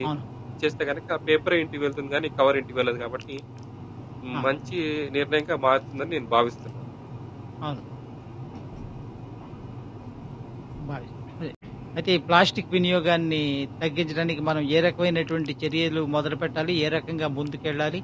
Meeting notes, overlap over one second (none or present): none